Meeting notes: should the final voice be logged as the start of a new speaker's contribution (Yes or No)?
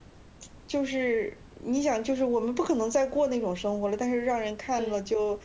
No